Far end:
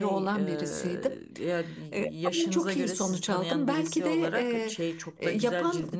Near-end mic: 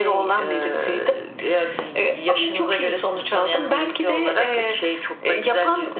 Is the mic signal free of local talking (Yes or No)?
Yes